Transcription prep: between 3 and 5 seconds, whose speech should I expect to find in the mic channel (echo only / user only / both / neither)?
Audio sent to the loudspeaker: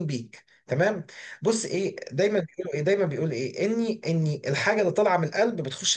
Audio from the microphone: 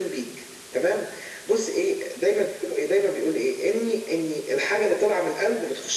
echo only